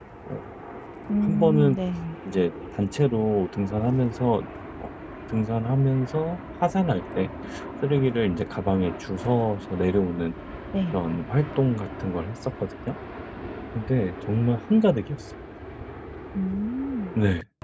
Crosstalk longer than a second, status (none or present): none